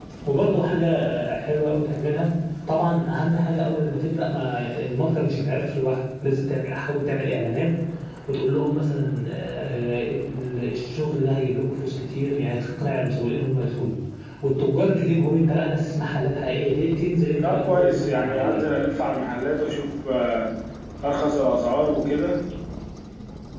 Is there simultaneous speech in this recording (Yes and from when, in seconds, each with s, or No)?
Yes, from 17.4 s